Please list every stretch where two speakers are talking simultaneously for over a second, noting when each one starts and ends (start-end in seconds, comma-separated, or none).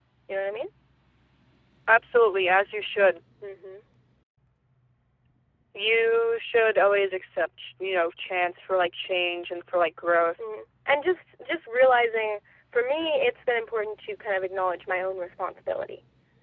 none